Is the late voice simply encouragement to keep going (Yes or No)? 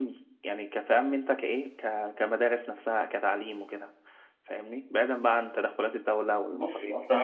No